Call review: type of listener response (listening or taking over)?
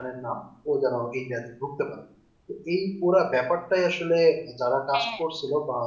listening